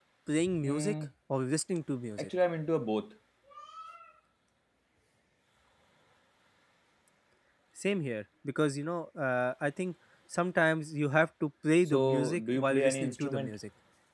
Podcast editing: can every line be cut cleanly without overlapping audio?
No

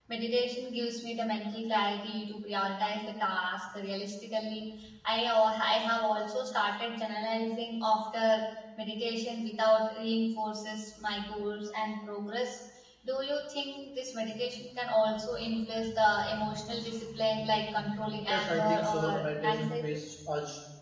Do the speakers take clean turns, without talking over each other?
No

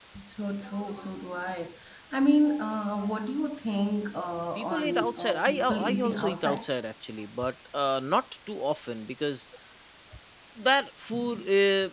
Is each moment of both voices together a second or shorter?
No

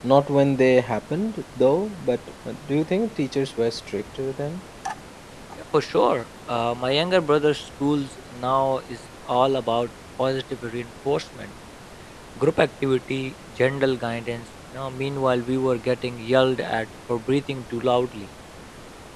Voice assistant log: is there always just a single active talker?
Yes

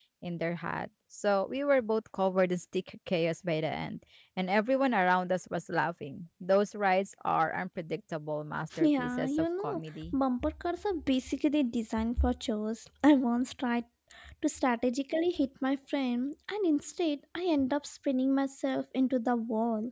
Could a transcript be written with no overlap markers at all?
No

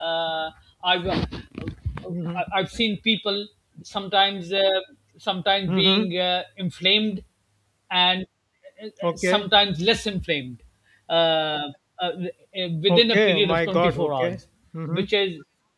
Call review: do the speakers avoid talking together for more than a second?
No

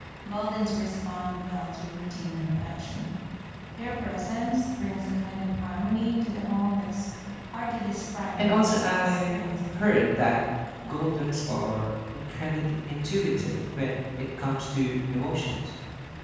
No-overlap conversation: No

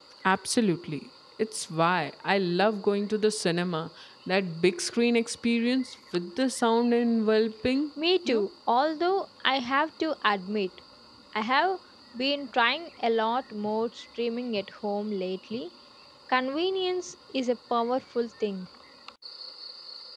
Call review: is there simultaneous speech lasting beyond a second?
No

